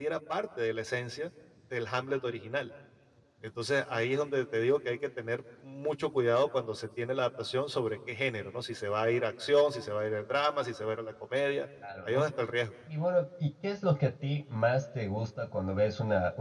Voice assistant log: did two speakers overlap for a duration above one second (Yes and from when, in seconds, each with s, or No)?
No